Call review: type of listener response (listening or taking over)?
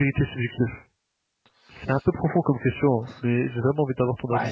taking over